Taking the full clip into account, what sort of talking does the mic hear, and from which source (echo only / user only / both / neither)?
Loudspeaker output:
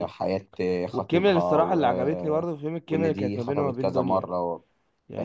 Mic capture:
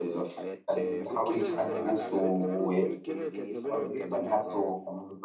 both